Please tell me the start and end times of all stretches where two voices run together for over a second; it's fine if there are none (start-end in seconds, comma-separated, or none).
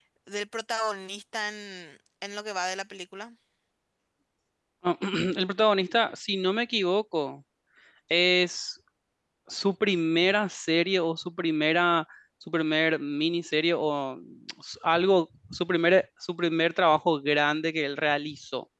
none